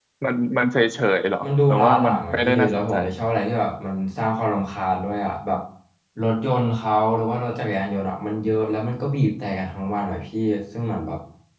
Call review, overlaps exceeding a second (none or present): present